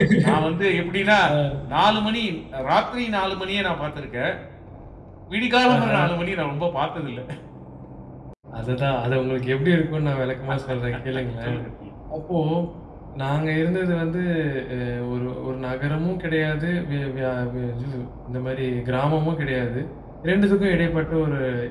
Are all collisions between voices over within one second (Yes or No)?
Yes